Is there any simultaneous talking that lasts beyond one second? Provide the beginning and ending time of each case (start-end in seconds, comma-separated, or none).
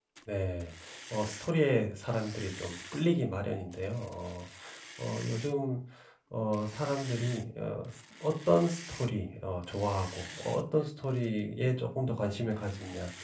none